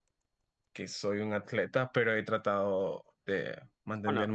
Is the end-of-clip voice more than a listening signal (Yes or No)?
No